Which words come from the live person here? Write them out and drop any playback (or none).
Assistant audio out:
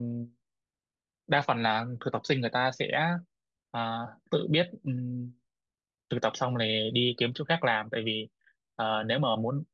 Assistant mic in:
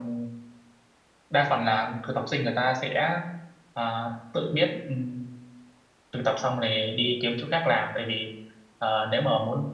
none